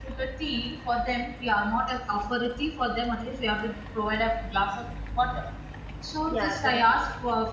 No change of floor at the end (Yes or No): Yes